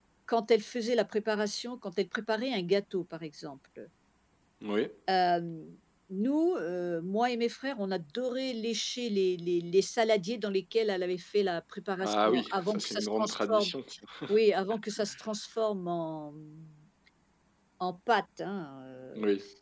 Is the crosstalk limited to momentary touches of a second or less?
No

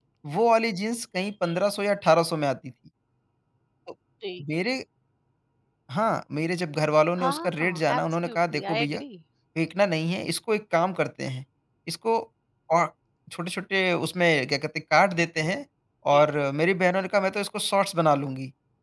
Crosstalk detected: Yes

